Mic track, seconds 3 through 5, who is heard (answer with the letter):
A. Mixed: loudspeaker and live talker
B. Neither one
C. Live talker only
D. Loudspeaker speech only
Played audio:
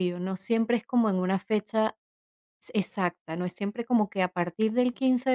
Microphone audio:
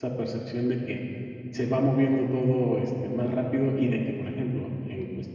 C